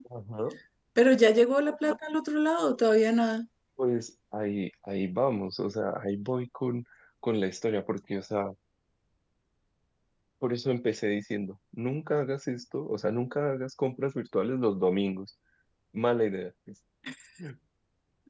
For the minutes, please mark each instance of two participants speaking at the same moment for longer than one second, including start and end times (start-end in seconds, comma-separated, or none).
none